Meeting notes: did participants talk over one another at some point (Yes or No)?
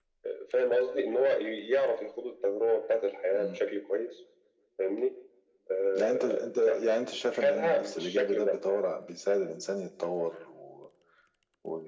Yes